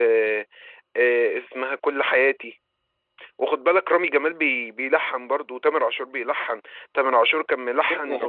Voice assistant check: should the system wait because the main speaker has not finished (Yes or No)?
No